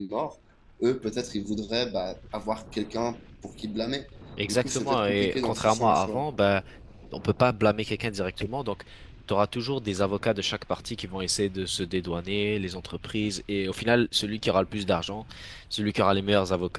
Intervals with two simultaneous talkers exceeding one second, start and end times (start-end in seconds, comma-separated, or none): 4.5-6.2